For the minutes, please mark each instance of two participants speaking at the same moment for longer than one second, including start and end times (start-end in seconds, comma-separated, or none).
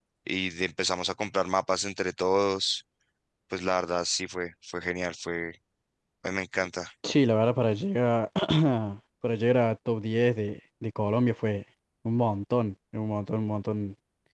none